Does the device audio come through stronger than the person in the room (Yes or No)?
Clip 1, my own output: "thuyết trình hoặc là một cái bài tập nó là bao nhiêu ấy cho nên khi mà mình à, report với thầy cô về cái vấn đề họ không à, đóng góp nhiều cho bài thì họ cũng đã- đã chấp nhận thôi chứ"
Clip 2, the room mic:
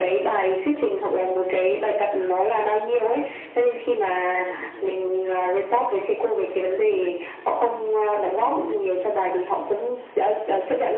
Yes